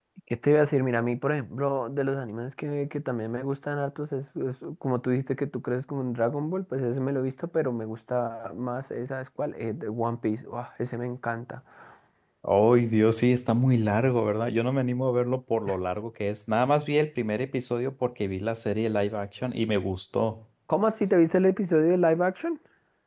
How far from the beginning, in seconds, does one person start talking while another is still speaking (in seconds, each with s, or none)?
none